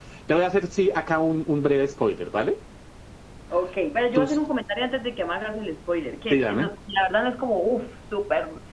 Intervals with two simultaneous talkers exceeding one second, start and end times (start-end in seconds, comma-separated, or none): none